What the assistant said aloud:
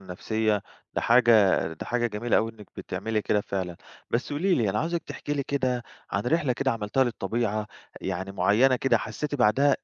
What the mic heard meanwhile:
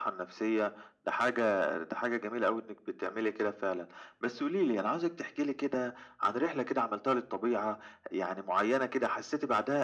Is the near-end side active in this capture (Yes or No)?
No